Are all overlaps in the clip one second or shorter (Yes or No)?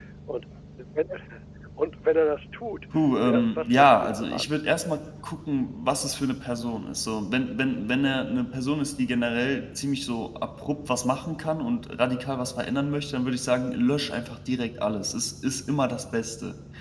No